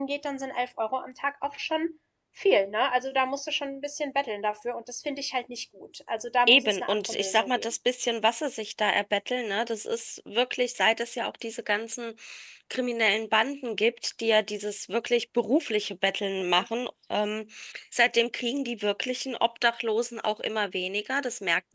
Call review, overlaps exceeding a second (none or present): present